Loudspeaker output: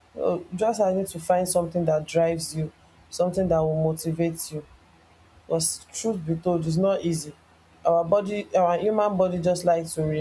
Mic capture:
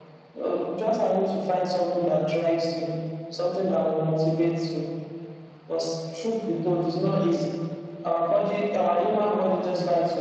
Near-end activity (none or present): none